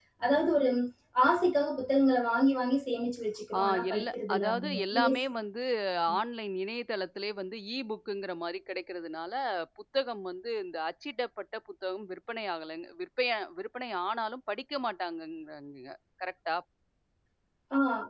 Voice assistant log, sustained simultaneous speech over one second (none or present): present